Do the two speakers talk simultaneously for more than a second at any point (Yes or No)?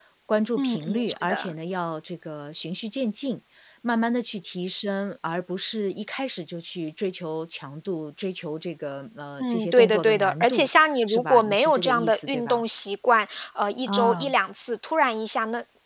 Yes